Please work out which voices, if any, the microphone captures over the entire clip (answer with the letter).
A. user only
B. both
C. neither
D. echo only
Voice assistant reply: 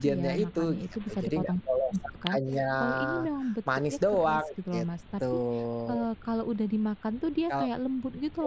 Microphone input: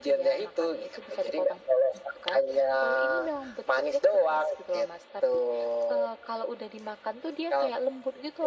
D